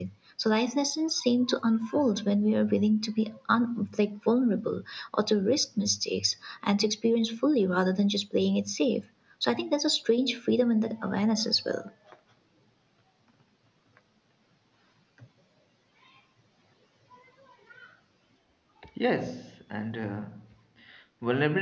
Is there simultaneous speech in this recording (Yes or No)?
No